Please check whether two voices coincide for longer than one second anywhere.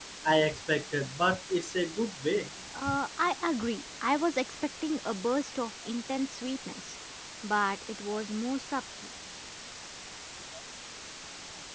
No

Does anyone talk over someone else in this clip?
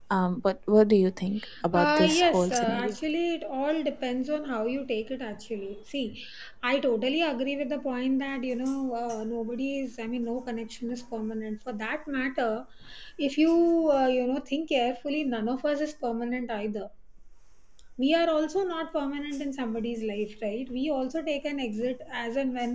Yes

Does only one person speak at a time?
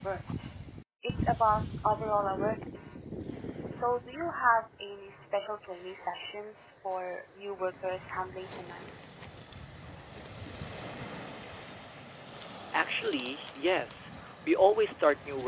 Yes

